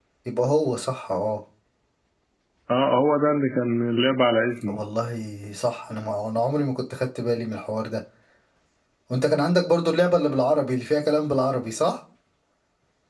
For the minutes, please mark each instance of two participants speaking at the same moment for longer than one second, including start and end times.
none

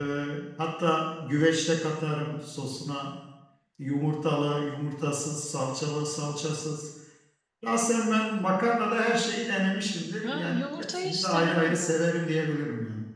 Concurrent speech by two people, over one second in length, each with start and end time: 10.2-12.0

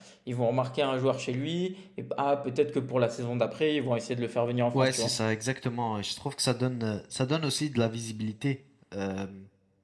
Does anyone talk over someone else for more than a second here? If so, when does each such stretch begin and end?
none

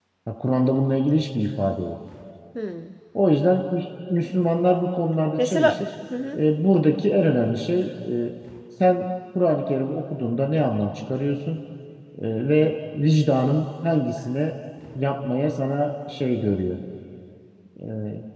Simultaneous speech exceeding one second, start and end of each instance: none

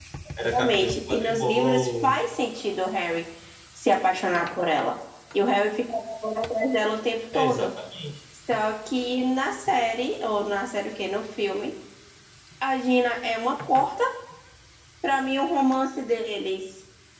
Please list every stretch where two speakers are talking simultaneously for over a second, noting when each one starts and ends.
0.5-2.2

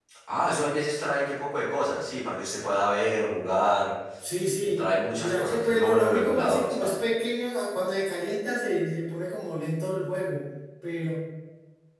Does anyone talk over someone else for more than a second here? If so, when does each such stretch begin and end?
4.6-7.0

